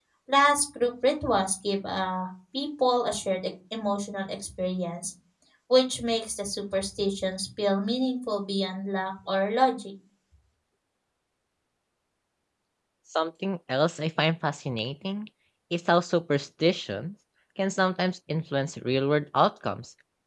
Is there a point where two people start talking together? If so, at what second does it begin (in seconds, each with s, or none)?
none